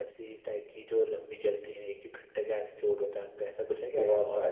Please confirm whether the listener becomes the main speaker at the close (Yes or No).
Yes